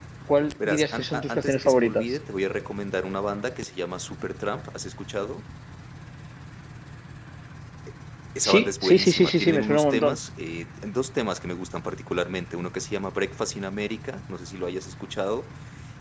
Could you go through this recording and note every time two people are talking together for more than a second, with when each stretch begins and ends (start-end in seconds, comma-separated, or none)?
0.6-2.2, 8.4-10.2